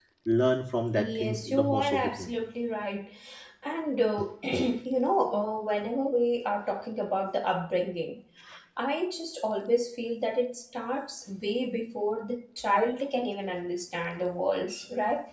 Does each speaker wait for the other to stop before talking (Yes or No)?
No